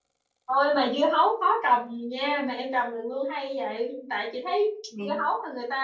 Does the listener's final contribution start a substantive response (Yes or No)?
No